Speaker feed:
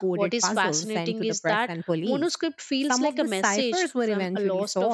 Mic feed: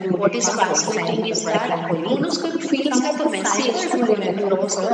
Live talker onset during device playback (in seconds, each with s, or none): none